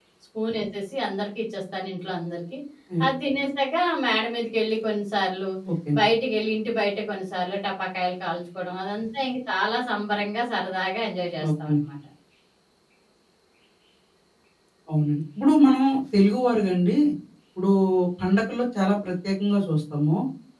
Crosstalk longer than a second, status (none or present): none